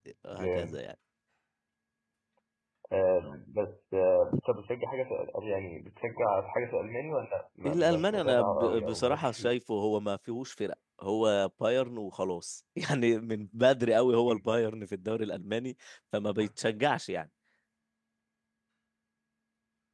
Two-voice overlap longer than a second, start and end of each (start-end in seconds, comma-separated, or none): 7.7-9.5